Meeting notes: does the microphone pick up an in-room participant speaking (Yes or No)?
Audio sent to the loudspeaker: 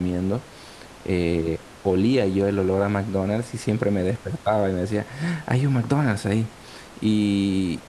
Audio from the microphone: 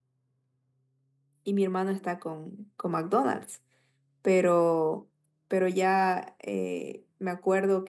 Yes